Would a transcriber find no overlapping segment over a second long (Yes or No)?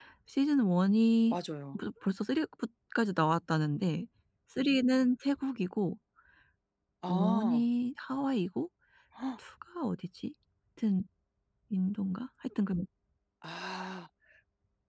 Yes